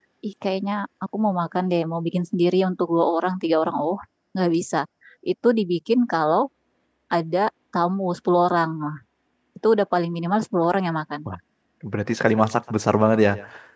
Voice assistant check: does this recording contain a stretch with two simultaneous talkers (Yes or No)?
No